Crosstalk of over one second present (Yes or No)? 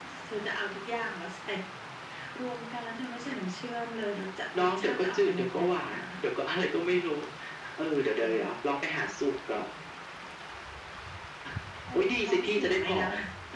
Yes